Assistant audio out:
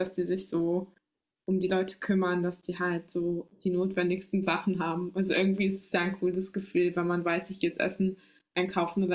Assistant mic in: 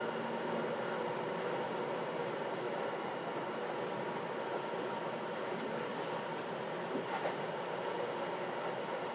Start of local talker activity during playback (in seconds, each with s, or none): none